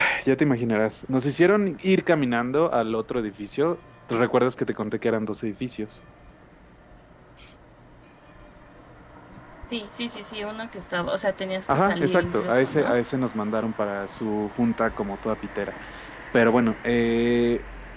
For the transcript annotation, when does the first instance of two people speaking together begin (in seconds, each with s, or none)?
11.7 s